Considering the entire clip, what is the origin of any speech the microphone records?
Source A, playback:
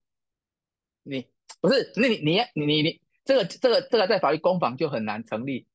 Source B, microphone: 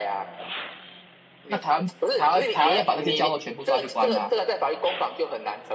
both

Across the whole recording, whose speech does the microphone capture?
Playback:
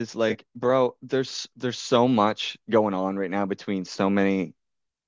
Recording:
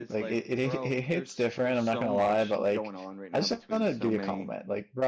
both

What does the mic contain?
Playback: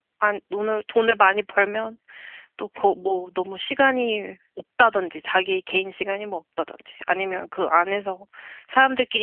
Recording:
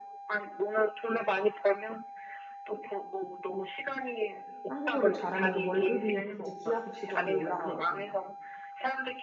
both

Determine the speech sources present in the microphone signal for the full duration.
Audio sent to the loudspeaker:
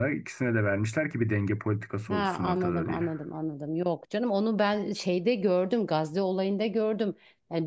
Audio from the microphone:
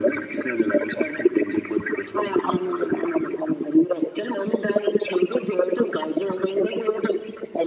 echo only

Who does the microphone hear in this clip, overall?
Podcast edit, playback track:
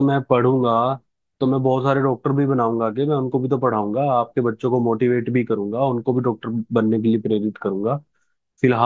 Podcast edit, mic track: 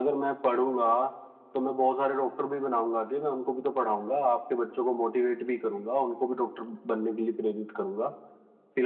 echo only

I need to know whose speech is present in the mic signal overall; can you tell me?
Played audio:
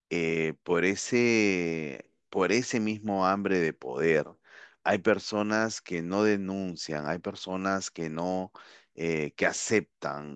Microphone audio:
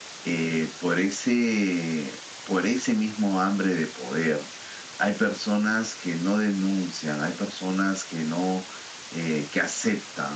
echo only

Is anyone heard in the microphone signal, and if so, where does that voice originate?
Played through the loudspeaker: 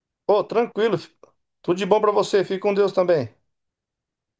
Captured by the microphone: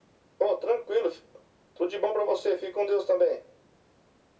echo only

